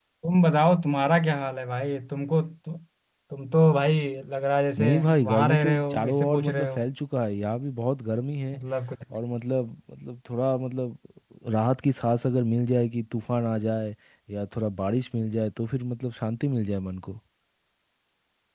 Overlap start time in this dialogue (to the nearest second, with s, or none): 5 s